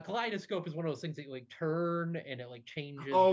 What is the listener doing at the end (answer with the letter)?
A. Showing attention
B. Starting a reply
B